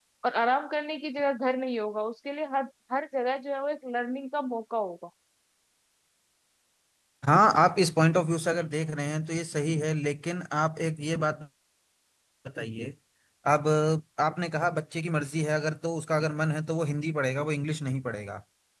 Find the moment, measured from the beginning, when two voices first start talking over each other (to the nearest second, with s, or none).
none